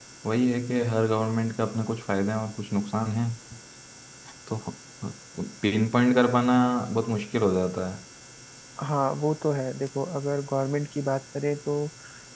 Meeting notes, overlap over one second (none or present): none